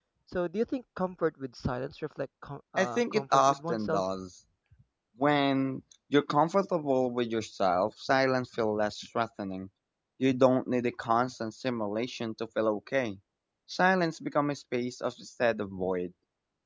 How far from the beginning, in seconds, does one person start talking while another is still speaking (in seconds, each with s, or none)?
2.8 s